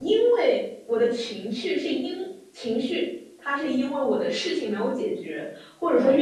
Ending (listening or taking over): listening